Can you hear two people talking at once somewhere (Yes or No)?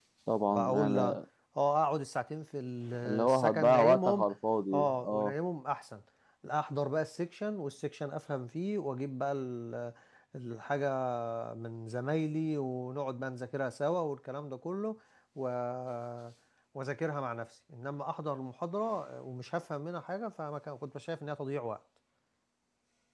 Yes